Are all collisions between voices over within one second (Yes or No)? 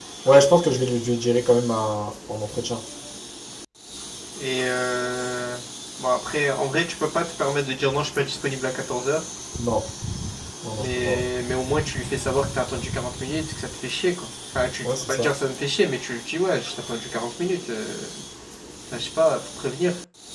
Yes